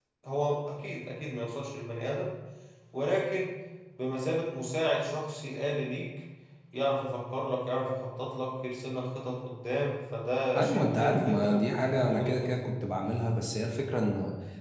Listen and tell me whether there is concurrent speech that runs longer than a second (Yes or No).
Yes